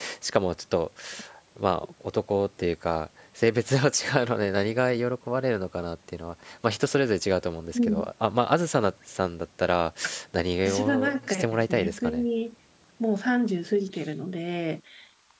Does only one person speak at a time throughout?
No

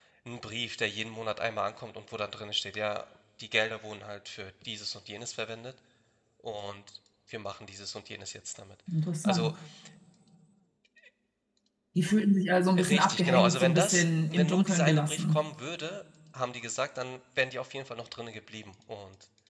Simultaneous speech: Yes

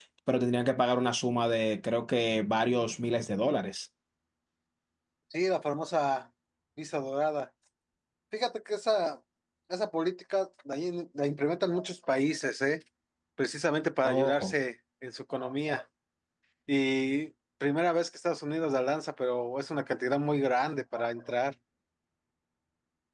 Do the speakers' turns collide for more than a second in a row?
No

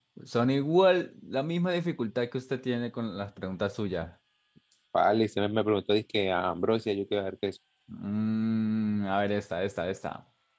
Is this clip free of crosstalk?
Yes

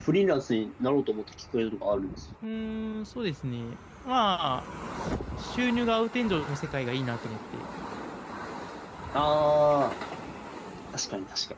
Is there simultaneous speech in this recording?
No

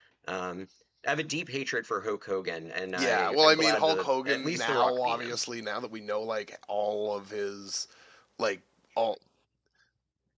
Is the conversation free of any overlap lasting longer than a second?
No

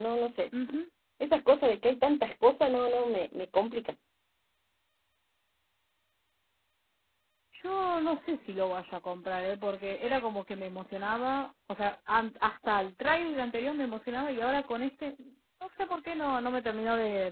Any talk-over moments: No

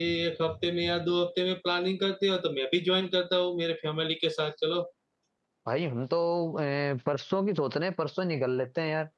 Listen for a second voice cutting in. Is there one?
No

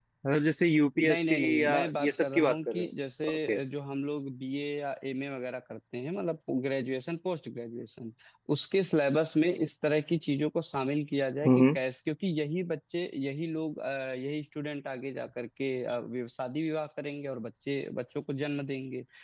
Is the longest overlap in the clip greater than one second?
Yes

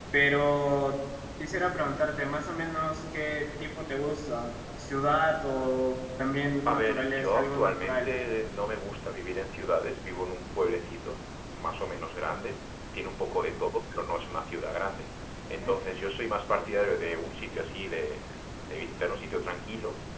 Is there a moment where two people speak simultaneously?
Yes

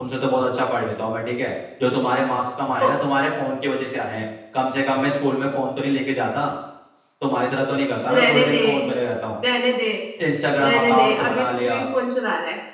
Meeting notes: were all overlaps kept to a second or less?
No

